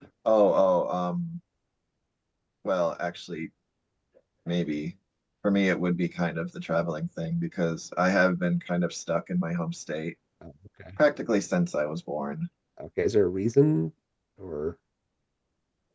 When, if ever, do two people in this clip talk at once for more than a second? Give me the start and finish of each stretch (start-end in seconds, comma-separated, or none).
none